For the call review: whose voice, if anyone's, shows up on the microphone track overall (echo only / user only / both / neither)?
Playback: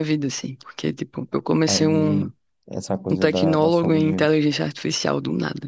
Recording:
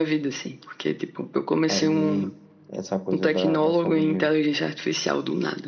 echo only